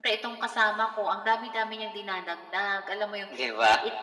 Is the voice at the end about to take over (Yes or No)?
No